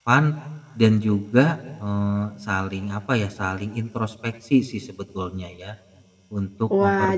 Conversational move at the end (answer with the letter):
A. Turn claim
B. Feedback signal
A